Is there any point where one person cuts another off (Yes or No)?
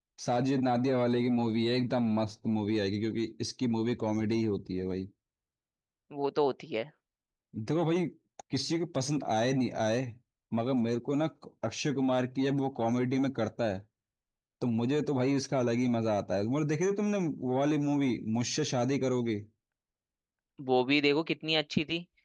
No